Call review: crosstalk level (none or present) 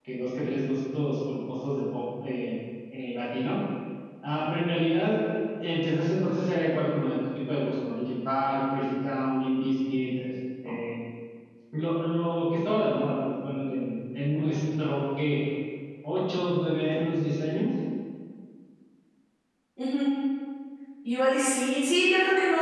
none